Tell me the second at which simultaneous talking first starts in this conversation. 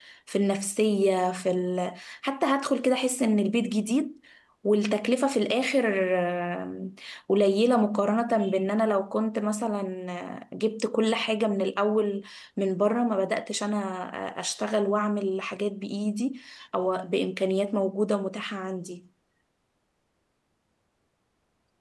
none

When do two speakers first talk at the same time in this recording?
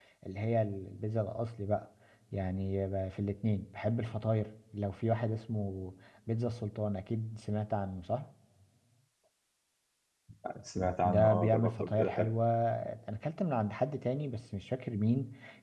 11.0 s

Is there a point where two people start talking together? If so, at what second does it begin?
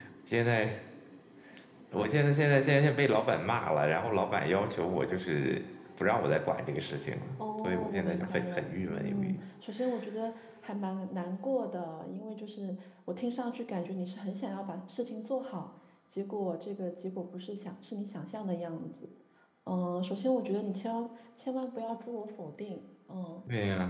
7.6 s

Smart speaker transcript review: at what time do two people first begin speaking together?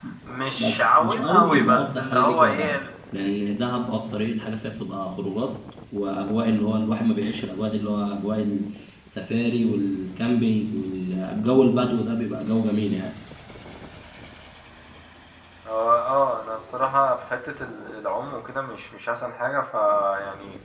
0.6 s

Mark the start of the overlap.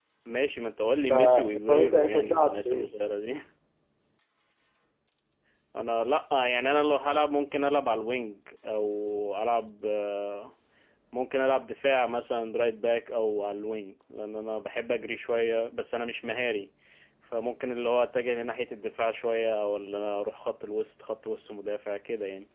1.1 s

